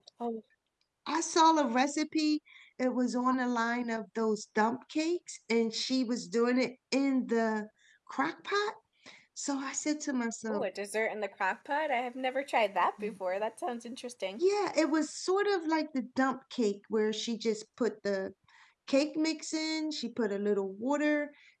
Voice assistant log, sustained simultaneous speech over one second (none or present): none